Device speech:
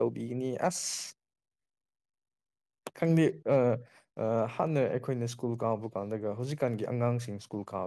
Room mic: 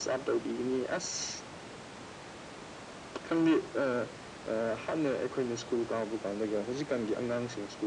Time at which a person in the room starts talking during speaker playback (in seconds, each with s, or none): none